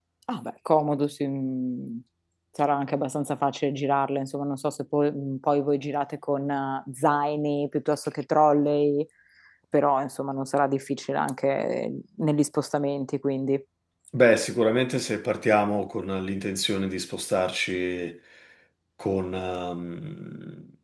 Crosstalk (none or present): none